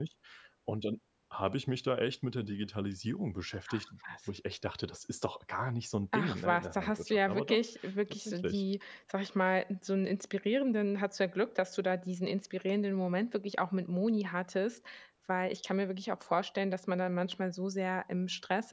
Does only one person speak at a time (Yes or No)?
No